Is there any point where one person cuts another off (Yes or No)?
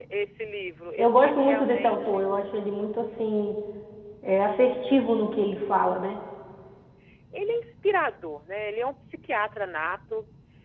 Yes